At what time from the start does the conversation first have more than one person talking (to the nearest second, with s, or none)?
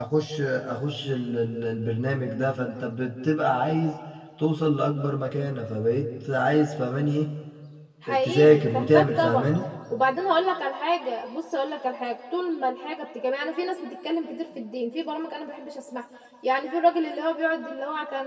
8 s